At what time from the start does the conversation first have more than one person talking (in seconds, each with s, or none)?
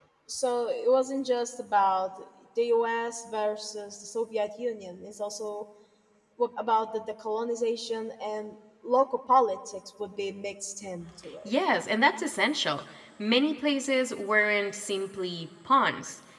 none